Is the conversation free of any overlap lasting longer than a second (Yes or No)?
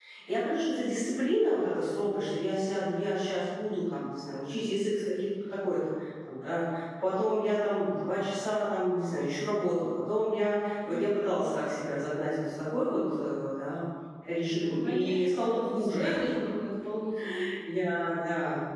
No